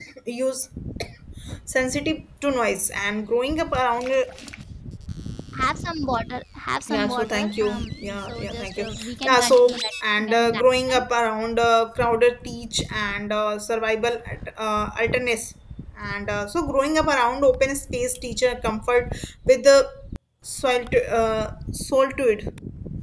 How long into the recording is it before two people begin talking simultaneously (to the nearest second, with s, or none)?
7 s